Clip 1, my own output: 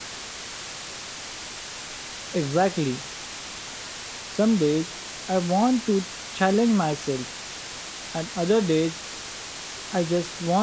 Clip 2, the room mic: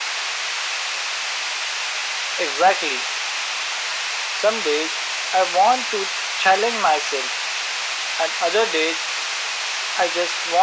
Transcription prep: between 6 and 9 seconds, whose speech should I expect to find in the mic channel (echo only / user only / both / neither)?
echo only